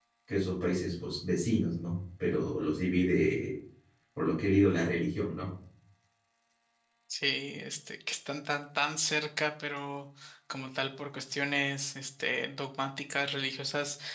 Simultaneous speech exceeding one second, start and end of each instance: none

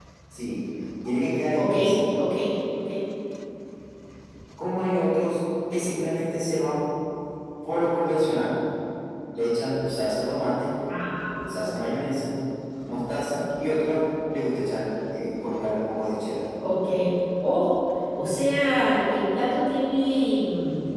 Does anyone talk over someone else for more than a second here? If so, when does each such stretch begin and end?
none

